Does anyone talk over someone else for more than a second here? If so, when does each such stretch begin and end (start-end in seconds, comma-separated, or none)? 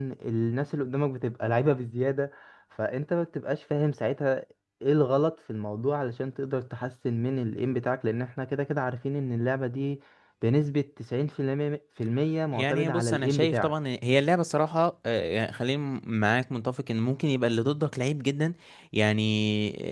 12.5-13.7